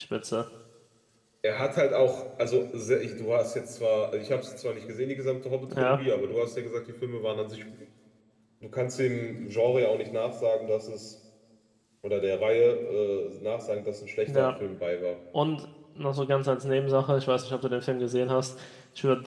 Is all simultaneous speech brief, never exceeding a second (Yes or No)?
Yes